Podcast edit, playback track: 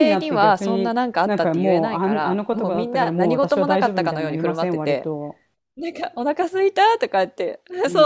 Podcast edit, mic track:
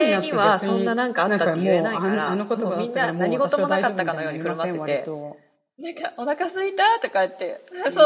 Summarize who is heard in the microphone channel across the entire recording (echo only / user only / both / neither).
echo only